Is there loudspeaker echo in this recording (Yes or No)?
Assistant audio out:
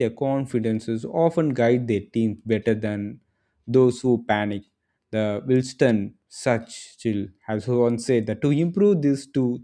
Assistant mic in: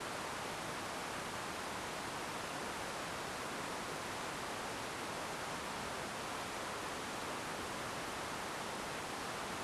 No